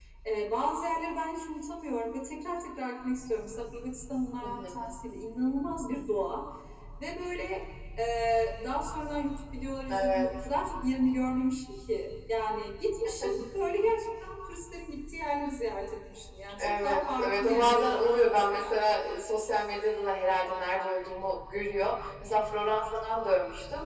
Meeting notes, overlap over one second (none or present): present